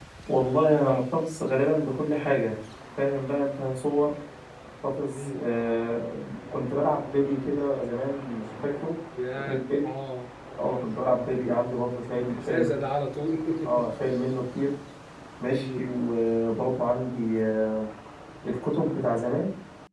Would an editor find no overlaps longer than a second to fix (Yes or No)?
Yes